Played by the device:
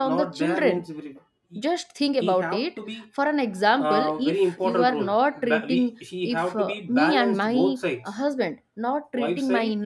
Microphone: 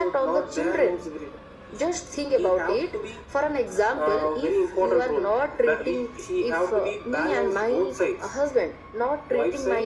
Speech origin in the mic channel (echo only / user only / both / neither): echo only